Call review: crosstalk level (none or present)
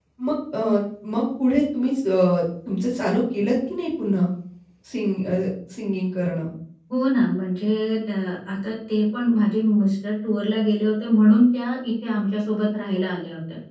none